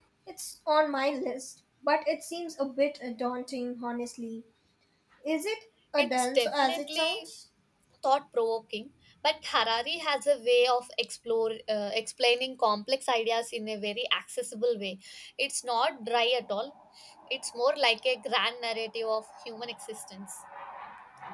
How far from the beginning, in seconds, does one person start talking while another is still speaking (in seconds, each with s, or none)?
6.0 s